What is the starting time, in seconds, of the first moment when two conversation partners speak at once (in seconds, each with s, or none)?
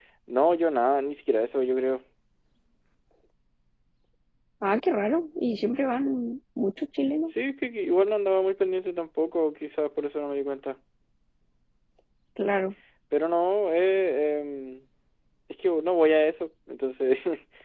none